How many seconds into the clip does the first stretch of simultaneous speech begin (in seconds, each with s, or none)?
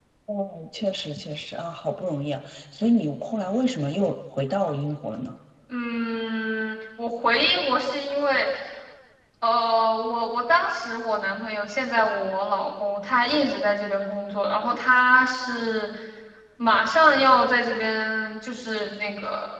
none